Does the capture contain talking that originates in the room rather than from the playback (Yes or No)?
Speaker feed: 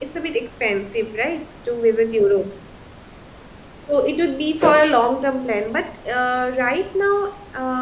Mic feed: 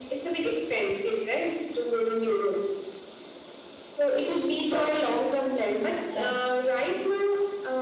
Yes